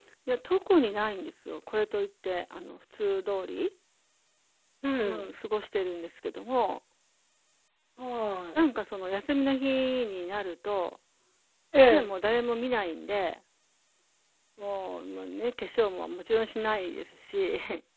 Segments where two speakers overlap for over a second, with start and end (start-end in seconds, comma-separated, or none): none